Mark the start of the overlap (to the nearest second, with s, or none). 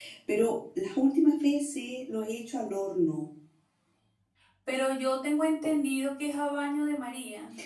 none